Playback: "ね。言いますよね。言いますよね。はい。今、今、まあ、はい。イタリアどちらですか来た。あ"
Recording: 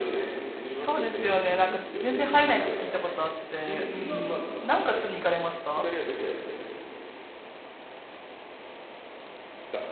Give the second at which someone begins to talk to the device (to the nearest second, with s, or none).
1 s